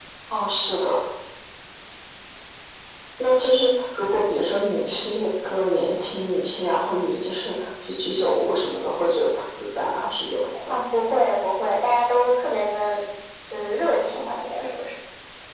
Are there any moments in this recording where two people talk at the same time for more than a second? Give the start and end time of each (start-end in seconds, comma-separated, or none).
none